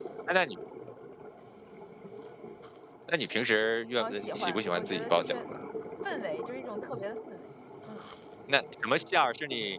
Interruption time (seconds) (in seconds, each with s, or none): 4.0 s